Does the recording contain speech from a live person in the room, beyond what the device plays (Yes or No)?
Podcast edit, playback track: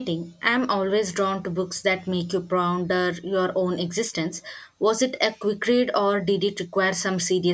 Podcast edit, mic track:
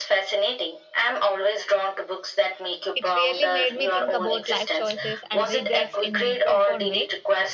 Yes